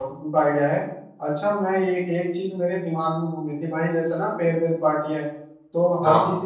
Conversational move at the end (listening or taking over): listening